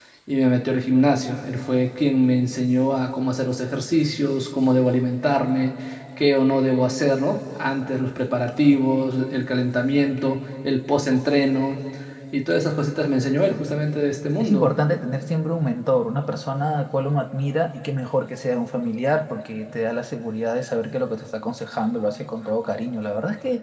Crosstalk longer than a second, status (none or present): none